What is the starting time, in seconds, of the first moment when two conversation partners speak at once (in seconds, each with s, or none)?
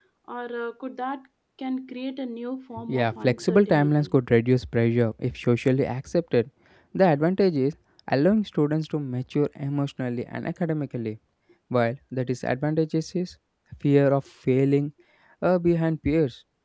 2.9 s